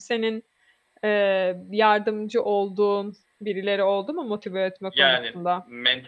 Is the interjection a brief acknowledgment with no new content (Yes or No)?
No